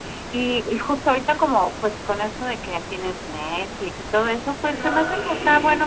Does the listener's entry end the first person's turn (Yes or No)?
No